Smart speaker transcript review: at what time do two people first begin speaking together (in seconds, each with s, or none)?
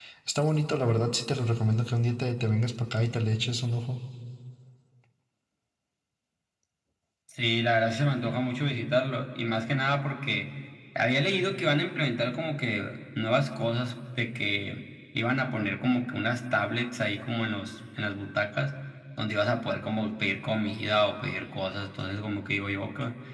none